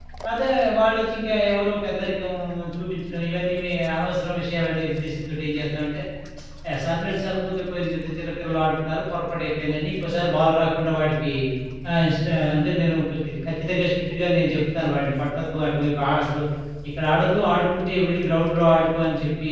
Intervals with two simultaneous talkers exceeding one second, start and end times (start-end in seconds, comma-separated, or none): none